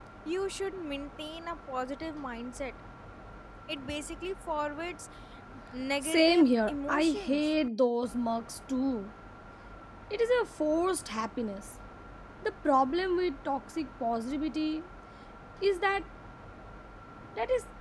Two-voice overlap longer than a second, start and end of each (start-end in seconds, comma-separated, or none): 6.0-7.5